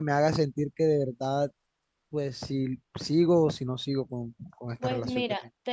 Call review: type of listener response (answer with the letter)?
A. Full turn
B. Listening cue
A